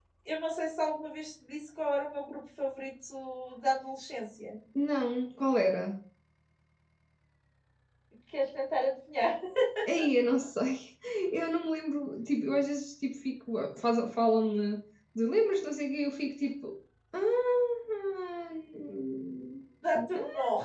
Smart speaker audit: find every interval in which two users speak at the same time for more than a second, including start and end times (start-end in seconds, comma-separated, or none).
none